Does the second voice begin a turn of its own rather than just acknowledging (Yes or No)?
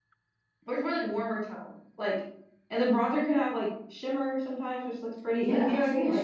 Yes